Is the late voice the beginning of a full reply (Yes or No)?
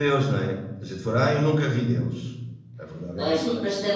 Yes